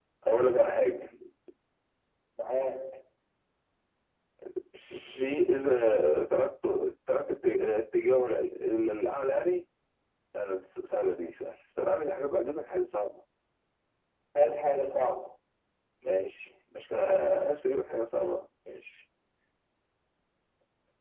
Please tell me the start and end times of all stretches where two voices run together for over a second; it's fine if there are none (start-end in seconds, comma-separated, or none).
none